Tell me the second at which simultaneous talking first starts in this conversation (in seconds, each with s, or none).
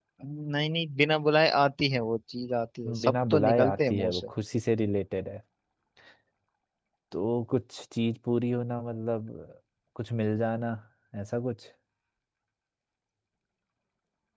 2.8 s